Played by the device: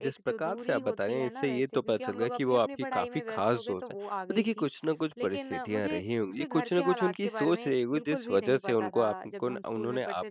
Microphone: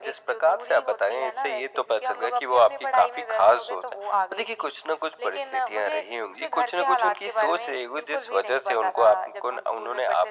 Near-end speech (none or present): none